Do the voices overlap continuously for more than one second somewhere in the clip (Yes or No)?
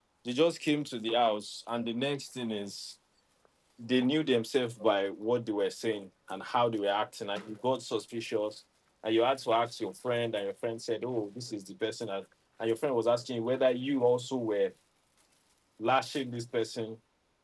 No